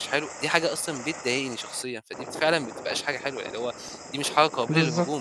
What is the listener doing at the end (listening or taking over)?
taking over